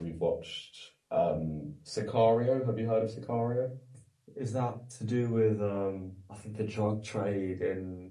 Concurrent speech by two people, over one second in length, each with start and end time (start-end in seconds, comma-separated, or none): none